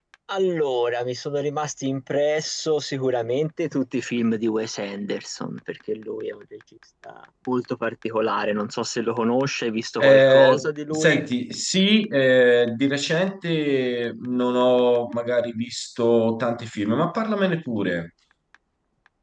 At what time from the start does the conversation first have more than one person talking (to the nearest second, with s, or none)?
10 s